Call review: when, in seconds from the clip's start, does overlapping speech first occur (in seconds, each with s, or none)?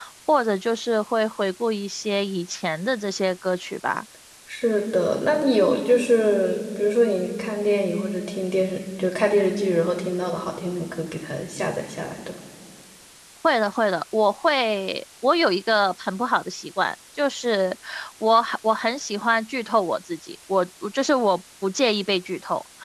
none